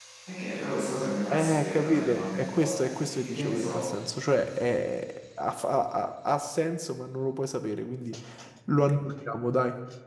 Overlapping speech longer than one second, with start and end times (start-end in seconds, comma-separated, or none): 1.3-3.8